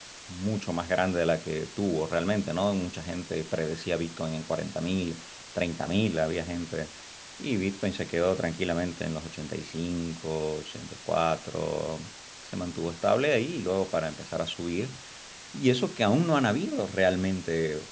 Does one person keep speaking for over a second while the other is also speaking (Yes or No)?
No